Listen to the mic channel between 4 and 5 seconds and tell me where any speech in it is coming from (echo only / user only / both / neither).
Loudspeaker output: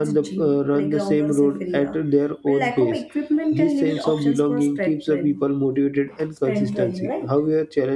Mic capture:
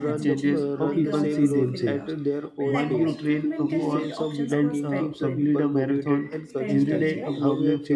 both